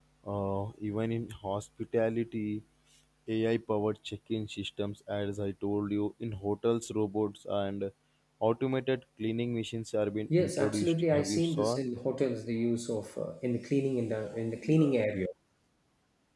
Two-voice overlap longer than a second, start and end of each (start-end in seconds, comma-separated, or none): 10.4-11.8